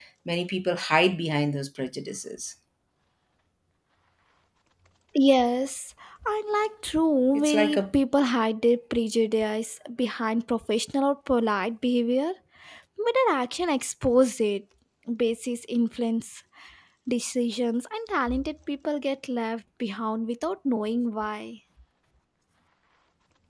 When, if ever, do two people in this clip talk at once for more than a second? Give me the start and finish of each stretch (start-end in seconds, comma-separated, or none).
none